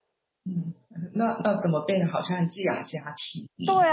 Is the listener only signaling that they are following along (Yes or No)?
No